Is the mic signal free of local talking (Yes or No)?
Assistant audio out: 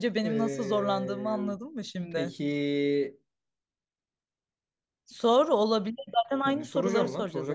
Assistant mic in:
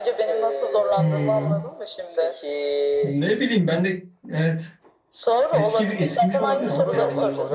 No